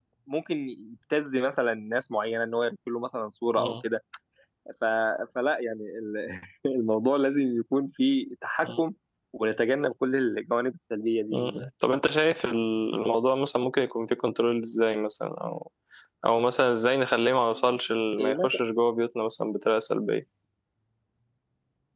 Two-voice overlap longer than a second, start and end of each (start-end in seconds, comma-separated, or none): none